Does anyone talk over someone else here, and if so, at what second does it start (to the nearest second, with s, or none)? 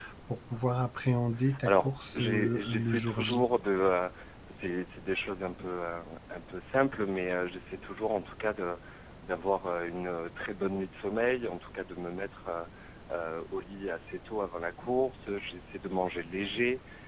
2 s